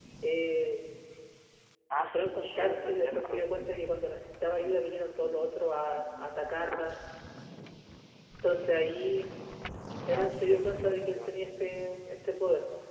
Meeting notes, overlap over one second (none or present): present